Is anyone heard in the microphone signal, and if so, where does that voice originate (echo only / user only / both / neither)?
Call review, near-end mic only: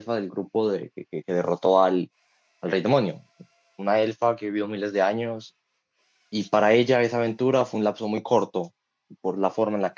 user only